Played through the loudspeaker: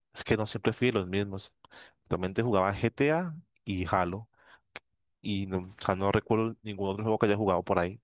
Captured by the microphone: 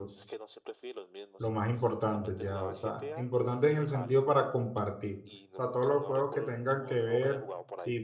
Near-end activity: present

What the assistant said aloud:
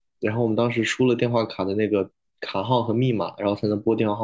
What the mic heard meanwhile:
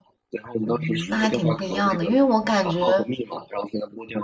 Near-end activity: present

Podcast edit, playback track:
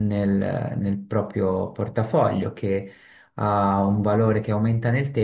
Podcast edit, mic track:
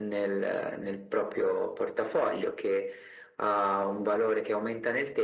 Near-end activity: none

